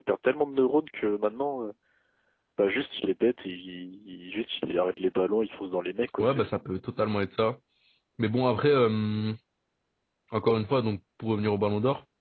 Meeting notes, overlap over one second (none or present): none